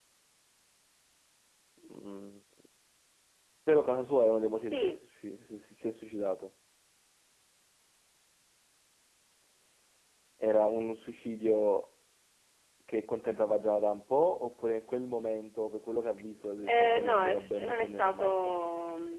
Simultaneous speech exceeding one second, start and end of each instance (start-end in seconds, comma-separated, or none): 16.6-18.5